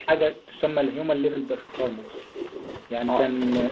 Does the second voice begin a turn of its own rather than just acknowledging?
No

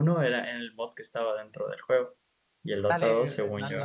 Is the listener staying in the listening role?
No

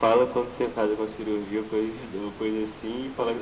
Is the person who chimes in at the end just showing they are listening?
Yes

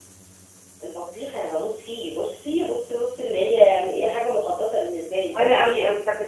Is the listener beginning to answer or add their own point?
Yes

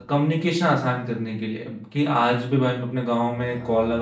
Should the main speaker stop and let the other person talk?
No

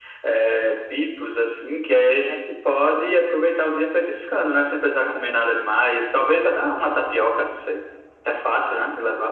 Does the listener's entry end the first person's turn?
Yes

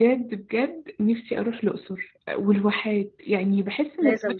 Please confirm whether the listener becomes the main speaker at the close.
No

